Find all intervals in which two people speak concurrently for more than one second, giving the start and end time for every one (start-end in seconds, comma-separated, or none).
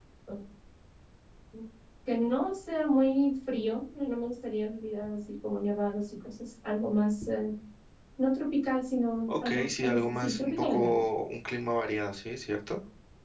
9.4-10.9